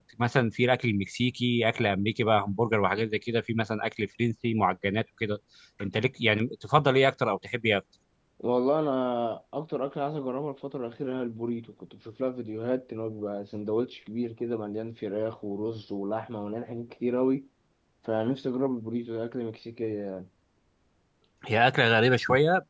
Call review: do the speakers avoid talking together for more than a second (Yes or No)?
Yes